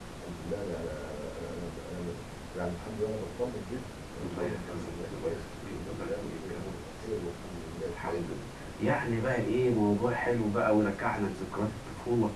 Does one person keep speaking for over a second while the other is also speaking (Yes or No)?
Yes